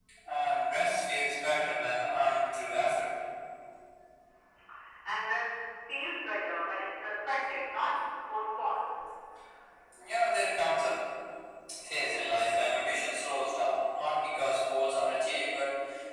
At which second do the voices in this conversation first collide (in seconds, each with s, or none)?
none